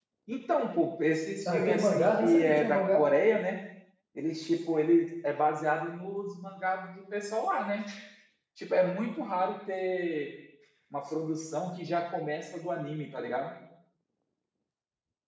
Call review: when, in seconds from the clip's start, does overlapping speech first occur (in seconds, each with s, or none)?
1.4 s